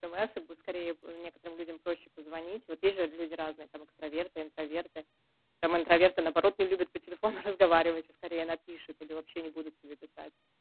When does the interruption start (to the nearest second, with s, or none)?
none